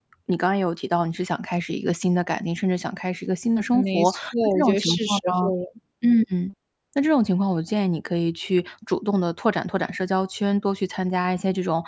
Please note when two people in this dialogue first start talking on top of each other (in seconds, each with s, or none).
3.7 s